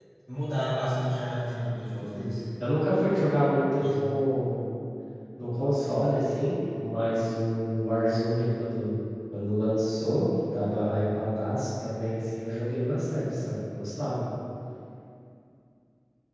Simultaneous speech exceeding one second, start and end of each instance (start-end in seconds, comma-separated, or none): none